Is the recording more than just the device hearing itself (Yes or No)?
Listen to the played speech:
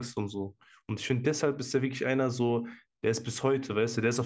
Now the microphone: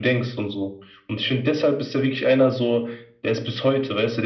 No